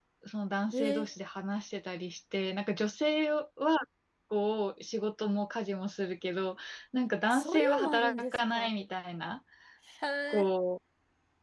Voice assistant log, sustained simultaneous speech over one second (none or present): present